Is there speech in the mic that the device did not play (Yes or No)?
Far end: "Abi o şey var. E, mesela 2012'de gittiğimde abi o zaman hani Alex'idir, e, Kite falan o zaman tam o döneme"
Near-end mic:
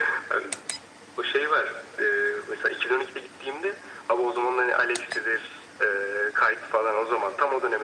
No